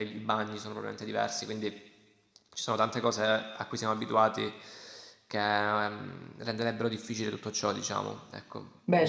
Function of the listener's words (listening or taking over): taking over